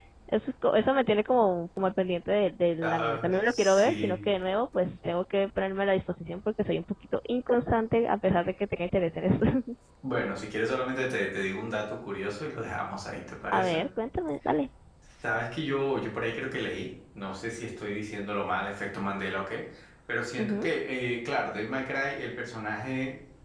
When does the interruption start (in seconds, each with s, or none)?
2.8 s